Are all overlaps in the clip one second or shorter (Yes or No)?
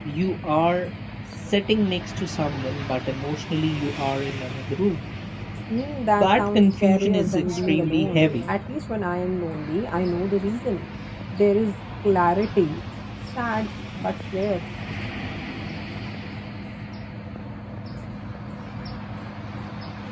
No